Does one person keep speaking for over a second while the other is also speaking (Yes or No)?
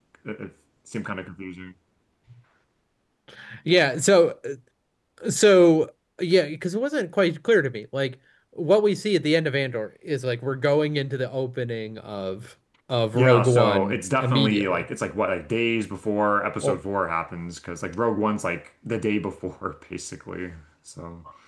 Yes